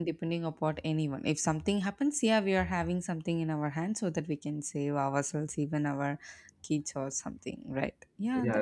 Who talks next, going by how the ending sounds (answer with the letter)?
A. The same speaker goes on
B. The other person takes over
B